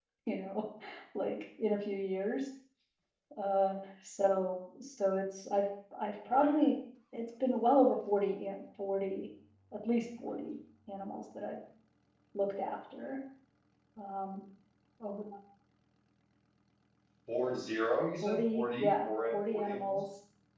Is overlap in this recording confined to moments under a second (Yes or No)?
No